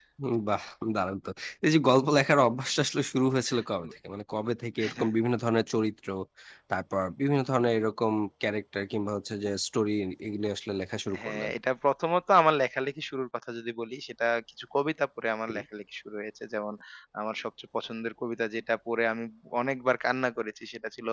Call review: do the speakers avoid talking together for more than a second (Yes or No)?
Yes